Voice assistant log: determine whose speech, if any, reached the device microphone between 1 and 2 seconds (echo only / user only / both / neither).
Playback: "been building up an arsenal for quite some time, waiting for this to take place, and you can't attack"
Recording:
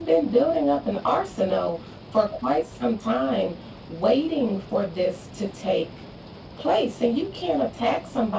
echo only